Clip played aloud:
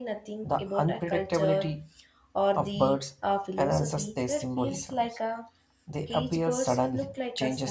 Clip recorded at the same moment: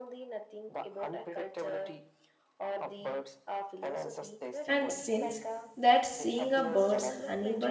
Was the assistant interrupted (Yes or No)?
Yes